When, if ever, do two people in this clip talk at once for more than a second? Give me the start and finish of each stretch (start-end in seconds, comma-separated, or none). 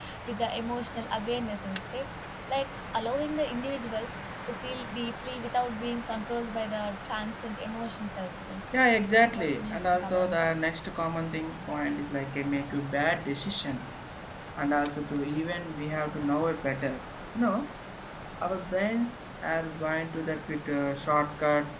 9.1-10.5